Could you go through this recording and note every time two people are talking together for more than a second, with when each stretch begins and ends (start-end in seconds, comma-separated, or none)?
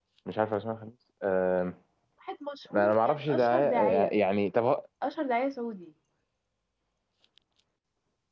2.7-4.1